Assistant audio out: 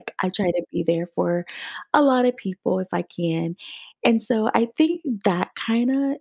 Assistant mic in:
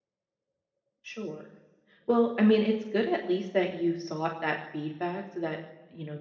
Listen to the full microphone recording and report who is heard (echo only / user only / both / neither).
user only